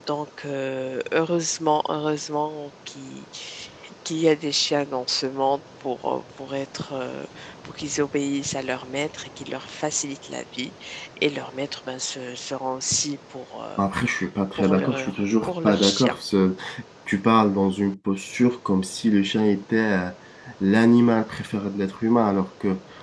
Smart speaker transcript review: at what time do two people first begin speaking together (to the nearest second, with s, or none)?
15 s